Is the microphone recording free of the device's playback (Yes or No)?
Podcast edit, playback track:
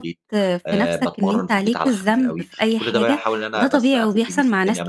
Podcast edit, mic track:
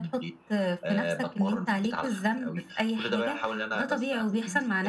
No